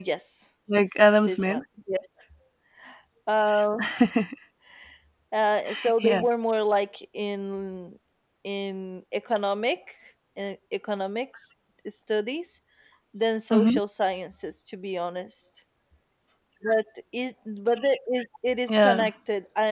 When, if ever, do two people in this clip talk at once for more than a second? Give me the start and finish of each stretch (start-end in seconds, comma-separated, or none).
none